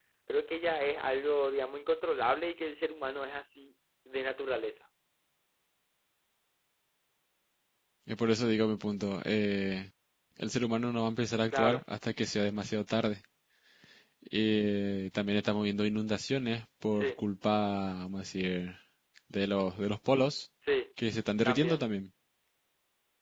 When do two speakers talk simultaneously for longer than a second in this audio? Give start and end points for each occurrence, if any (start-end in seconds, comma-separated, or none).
none